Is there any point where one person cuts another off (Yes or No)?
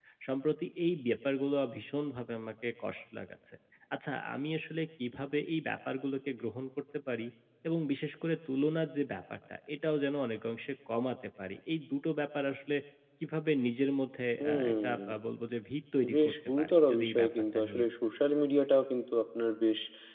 Yes